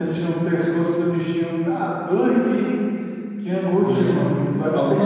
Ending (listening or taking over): taking over